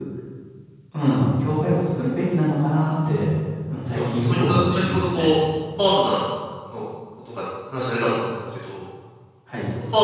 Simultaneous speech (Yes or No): Yes